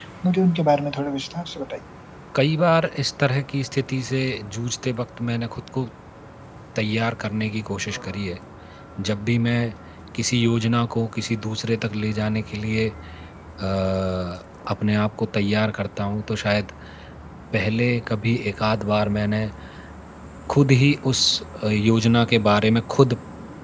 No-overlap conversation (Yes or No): Yes